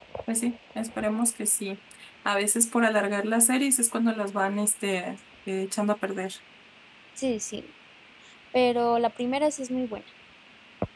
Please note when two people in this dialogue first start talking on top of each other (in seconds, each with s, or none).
none